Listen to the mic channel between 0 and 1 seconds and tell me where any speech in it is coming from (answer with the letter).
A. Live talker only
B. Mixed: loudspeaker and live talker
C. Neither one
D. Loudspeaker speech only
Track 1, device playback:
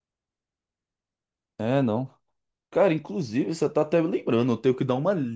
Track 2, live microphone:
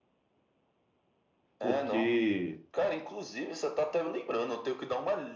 C